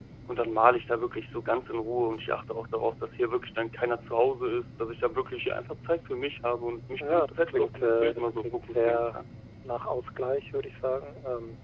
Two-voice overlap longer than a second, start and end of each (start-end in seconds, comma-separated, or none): 7.0-9.2